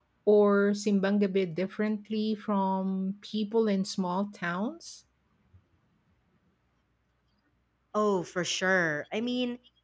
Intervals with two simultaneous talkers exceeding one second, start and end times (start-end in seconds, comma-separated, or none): none